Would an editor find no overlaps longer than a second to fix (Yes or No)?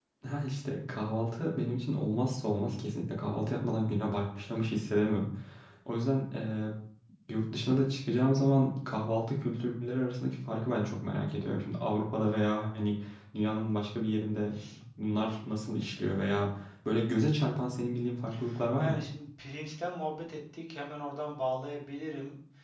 Yes